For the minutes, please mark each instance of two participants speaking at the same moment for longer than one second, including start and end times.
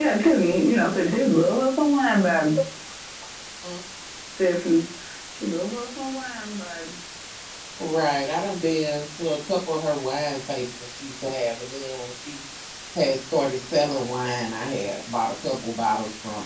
none

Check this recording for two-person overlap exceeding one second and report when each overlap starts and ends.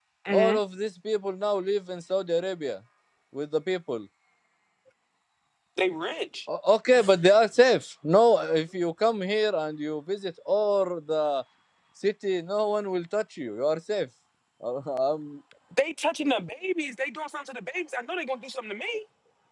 none

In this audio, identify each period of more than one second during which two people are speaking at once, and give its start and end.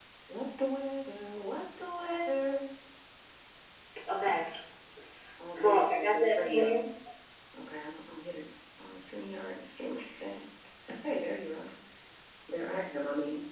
5.6-6.8

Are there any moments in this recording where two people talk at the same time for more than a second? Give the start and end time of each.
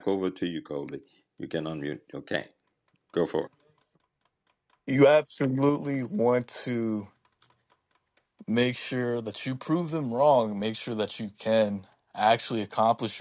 none

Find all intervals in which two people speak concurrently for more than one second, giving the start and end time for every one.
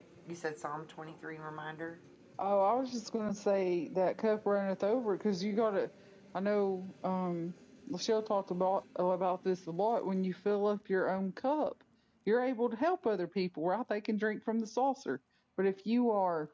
none

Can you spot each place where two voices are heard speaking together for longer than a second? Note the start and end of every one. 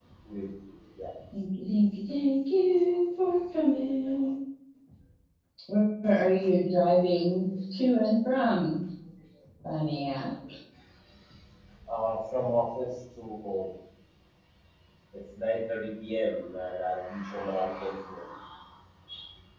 none

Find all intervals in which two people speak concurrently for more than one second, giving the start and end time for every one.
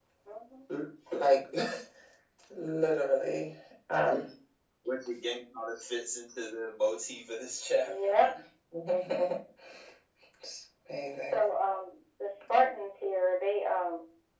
none

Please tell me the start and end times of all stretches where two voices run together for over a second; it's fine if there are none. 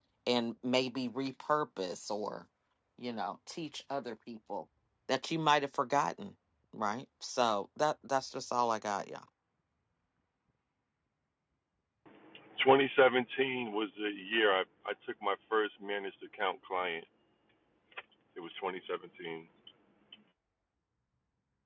none

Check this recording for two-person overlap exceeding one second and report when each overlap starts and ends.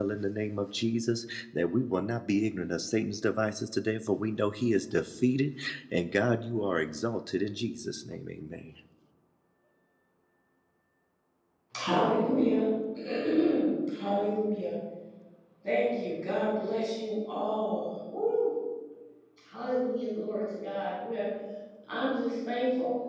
none

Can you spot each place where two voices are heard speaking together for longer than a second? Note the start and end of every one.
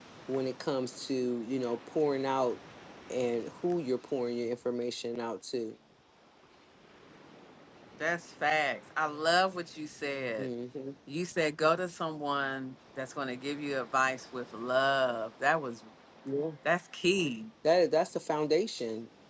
none

